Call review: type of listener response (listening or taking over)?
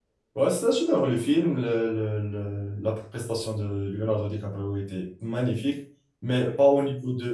listening